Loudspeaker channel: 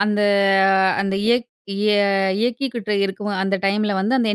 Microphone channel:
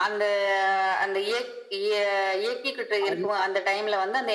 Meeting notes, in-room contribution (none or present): present